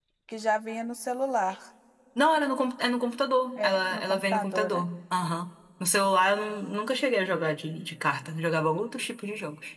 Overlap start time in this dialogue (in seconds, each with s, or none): 3.6 s